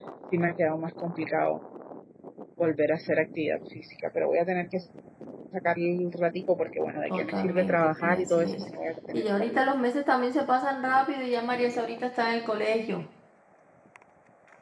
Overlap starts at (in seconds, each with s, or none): 7.0 s